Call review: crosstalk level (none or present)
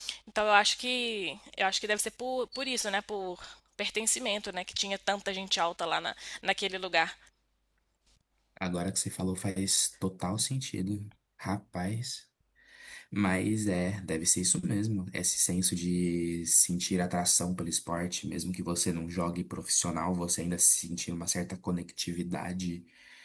none